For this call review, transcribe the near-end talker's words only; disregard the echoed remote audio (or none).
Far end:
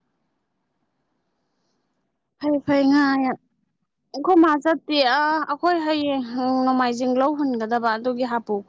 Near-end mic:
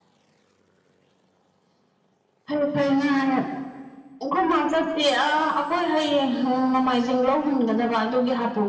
none